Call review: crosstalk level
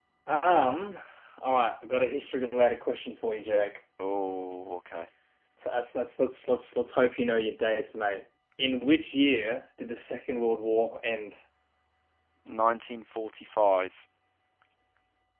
none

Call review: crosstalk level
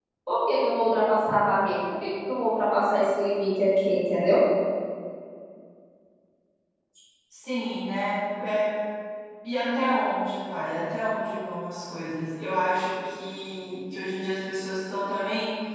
none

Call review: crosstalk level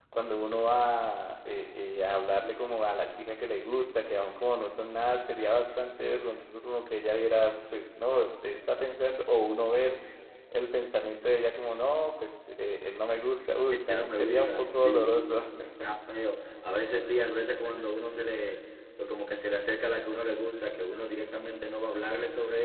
present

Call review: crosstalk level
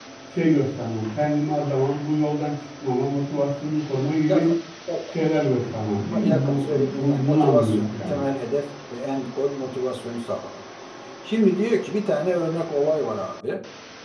present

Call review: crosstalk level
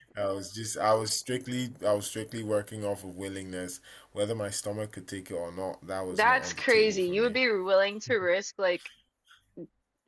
present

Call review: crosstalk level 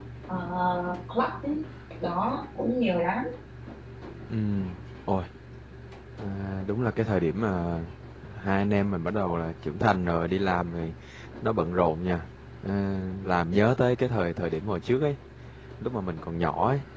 none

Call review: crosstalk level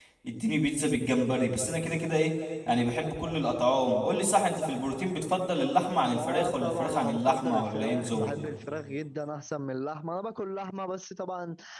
present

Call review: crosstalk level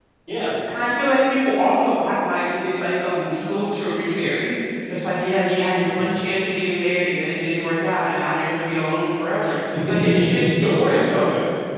present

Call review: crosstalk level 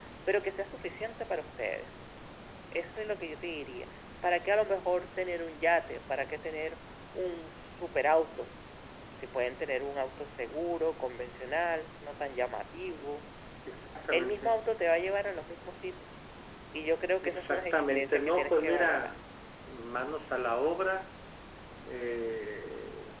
present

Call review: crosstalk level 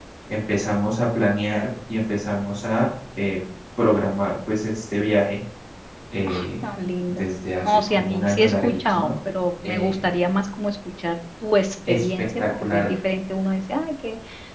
present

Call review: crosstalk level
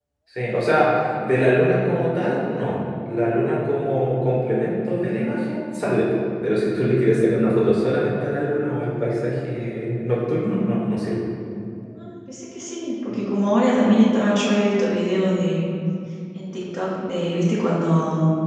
none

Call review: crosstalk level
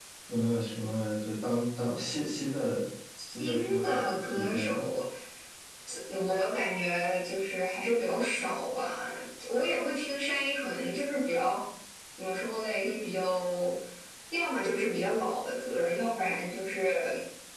present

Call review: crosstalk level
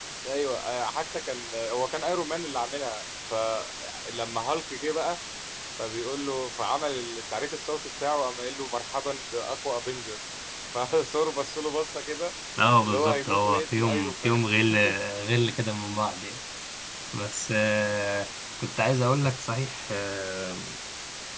present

